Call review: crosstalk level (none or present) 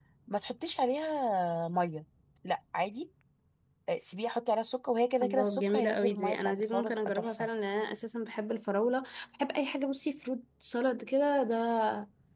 present